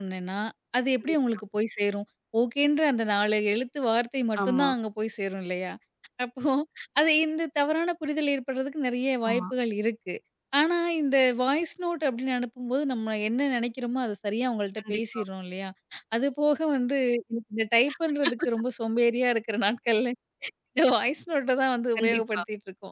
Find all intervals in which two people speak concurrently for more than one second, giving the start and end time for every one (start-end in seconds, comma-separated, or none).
none